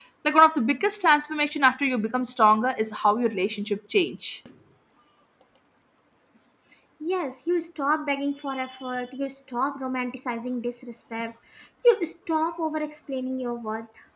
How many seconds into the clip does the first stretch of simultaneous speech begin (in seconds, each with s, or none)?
none